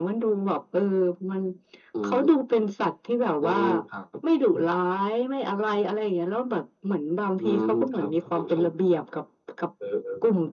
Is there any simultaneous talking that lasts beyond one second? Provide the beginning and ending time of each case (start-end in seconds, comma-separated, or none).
7.4-8.6